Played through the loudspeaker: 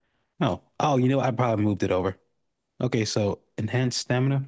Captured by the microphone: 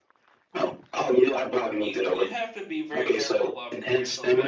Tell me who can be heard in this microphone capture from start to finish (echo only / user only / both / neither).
both